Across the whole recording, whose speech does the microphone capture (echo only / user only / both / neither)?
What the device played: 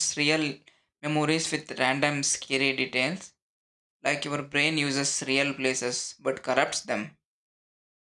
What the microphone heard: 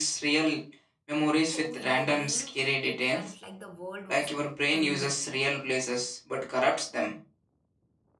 both